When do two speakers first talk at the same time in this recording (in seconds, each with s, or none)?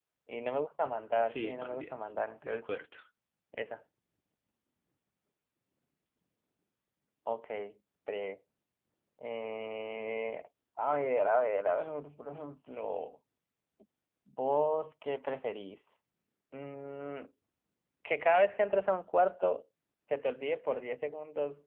1.2 s